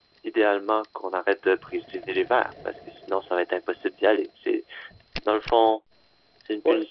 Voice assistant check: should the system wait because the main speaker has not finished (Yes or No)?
Yes